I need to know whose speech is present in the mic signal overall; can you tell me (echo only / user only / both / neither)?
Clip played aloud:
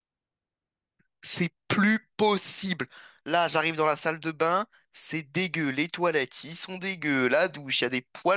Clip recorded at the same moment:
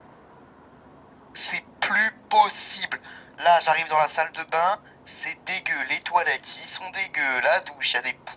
echo only